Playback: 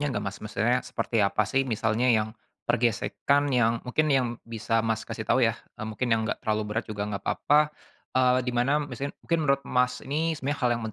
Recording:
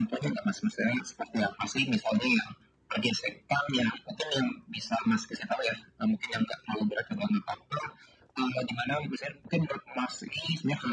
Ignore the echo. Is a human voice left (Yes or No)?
No